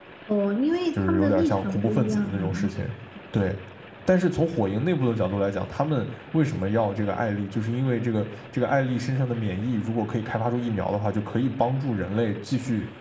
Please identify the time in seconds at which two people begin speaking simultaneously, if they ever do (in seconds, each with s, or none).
1.0 s